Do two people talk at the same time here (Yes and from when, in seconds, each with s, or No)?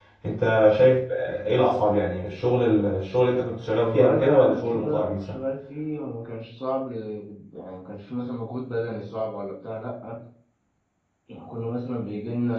Yes, from 3.7 s